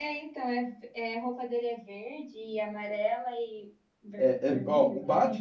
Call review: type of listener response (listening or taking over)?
taking over